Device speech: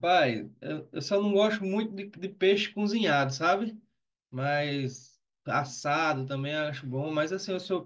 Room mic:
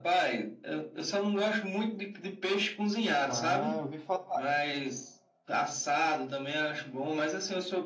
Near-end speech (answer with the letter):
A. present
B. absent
A